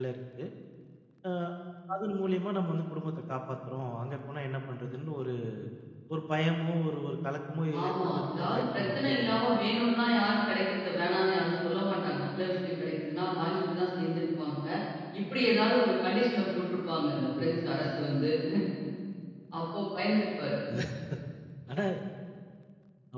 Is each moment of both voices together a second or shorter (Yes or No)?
No